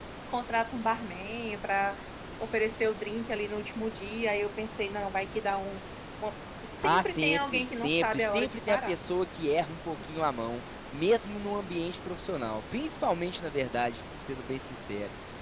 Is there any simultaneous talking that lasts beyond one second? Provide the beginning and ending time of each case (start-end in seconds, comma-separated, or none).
6.8-8.9